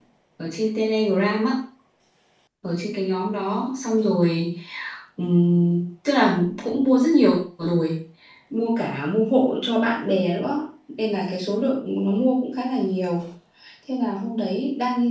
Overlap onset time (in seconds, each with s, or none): none